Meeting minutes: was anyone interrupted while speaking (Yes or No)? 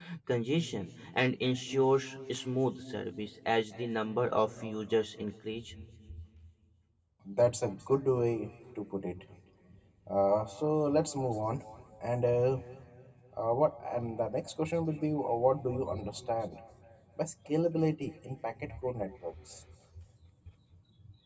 No